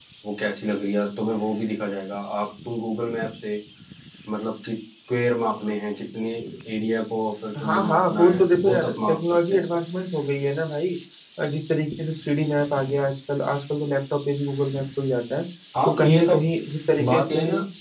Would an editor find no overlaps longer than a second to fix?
No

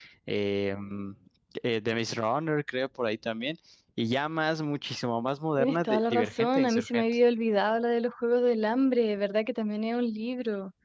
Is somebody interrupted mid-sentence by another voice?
Yes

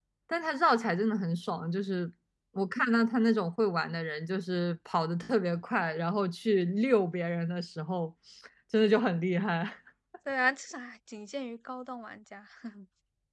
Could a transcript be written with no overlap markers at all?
Yes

